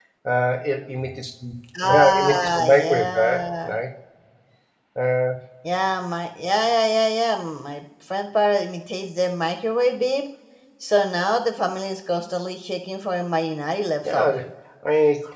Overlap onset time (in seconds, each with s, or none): 1.8 s